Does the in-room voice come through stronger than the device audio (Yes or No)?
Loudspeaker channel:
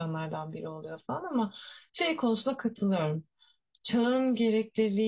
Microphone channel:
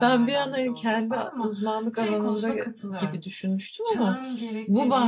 Yes